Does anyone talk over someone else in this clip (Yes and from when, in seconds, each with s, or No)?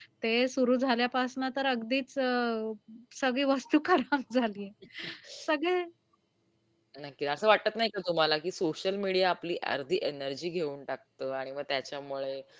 No